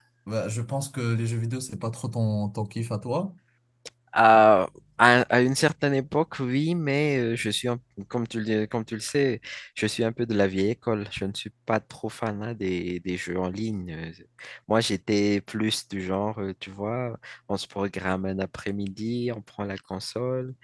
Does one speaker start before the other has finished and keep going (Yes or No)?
No